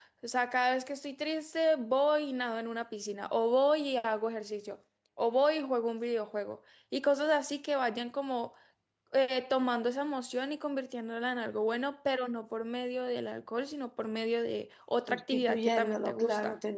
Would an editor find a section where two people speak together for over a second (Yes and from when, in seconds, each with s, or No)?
Yes, from 15.1 s